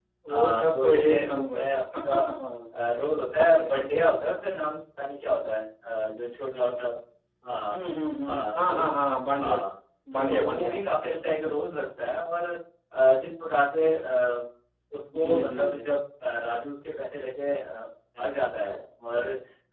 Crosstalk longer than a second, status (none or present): present